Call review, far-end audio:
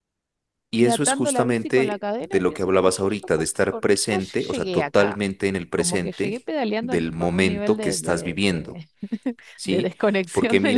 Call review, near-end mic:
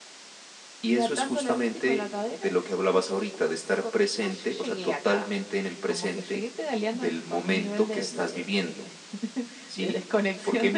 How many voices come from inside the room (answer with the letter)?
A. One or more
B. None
B